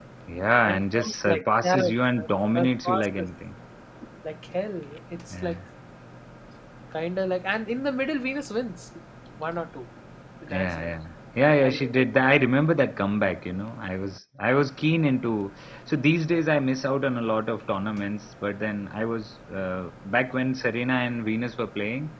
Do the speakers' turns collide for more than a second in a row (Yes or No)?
Yes